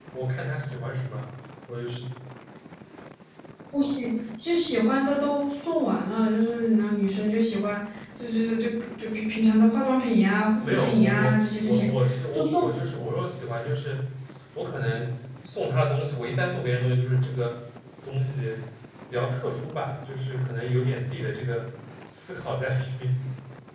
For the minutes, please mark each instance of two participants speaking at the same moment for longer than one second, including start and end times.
10.6-11.9

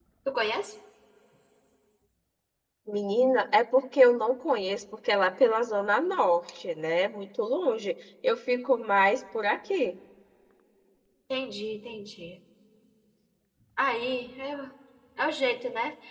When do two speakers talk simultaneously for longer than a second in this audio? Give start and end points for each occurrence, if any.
none

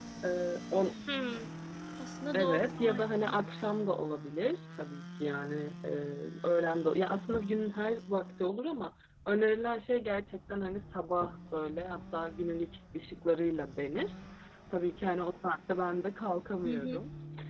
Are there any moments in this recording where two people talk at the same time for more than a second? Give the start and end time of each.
2.3-3.6

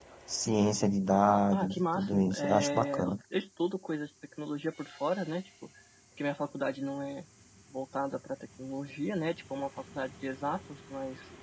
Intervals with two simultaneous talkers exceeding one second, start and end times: 1.5-3.1

